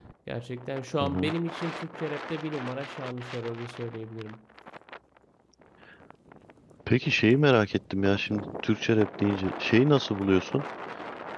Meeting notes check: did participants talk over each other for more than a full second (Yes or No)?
No